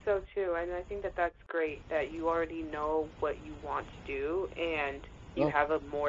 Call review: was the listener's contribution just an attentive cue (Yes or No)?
Yes